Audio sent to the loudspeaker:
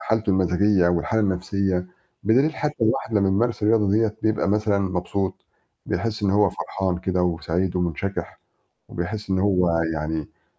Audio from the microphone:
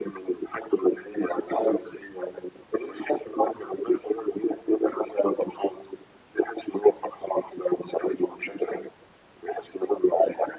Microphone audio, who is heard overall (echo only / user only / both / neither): echo only